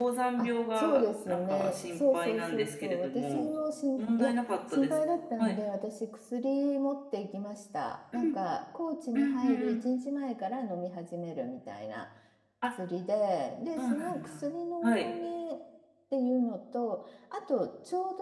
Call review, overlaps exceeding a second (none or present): present